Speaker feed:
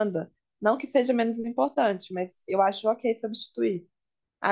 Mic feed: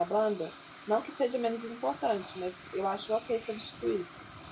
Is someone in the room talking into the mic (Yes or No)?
No